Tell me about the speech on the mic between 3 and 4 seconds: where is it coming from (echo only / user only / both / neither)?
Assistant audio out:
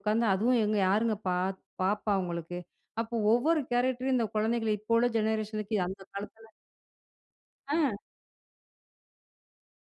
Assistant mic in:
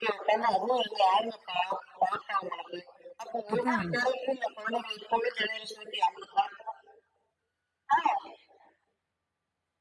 both